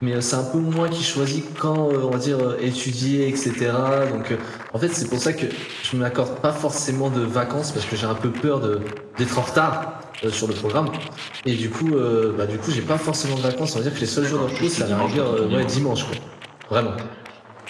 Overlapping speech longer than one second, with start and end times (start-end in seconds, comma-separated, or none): 14.1-15.9